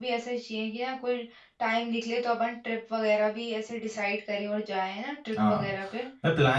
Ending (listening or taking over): taking over